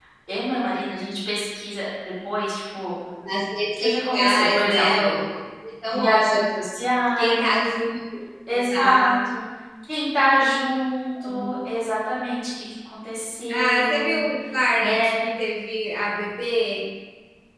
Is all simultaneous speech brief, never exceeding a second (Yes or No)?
No